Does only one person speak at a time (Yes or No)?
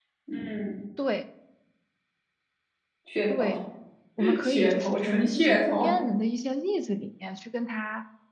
No